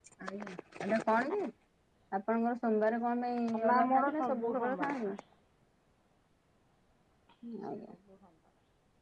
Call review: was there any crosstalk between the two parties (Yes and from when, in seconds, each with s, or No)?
Yes, from 3.5 s